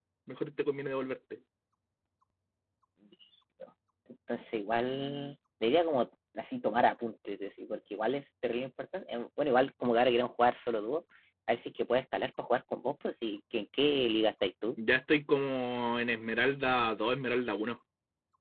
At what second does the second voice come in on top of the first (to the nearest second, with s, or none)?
none